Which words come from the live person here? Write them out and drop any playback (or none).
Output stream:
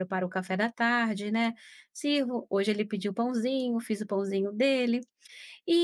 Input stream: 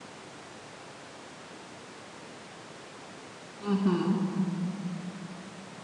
Uhum.